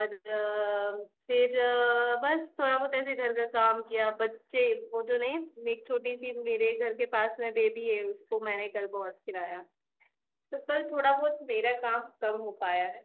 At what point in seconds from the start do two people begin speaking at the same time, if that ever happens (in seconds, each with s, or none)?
none